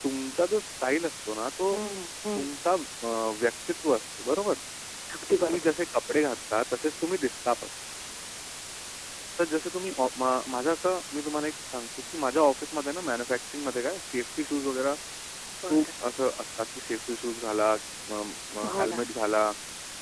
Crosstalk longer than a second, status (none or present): none